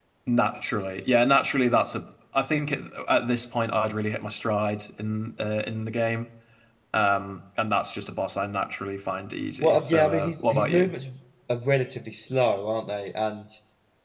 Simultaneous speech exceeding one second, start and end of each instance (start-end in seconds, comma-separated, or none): 9.6-10.9